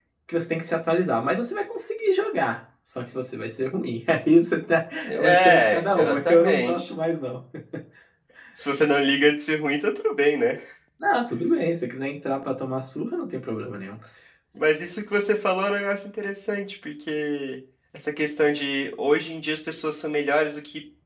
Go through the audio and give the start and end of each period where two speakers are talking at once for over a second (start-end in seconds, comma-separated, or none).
5.0-6.9